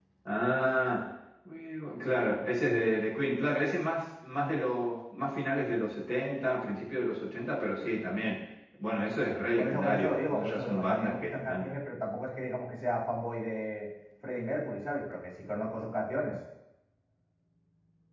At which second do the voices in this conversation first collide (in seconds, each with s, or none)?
9.6 s